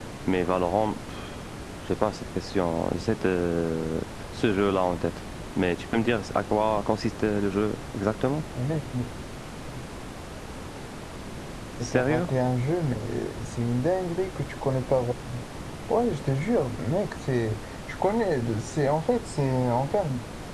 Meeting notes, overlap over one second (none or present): none